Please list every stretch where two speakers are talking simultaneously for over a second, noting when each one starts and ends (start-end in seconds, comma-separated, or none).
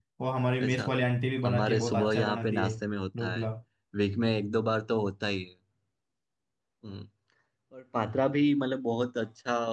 1.4-2.8